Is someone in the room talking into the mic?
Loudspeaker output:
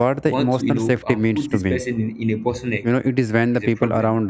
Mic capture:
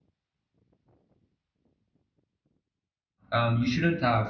Yes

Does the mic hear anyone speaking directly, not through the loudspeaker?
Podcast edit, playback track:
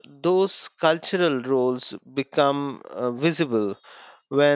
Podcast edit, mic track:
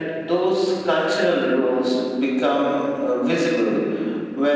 No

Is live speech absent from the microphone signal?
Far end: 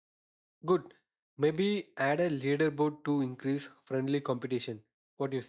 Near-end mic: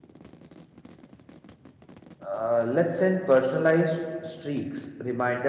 No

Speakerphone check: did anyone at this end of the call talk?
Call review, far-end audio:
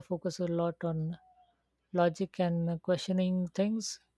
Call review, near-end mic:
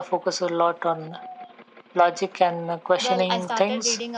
Yes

